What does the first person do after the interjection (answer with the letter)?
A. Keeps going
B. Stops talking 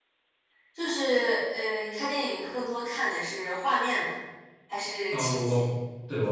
B